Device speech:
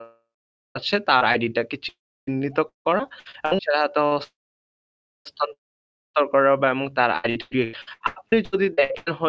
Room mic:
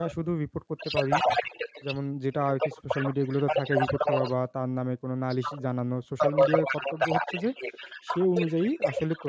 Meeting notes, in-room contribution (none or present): present